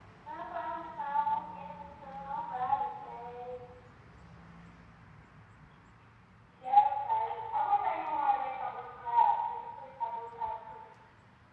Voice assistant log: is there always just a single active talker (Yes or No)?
Yes